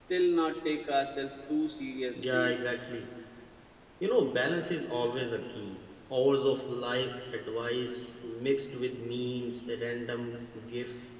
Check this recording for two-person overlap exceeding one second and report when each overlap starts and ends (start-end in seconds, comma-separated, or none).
none